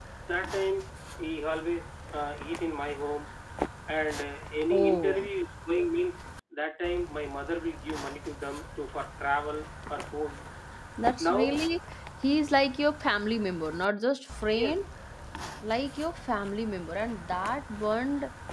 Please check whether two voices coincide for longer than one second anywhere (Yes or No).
No